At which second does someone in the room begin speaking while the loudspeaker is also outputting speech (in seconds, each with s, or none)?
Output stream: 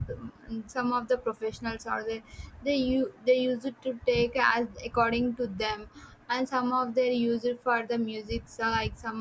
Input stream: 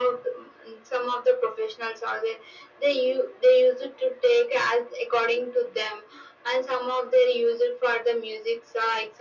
none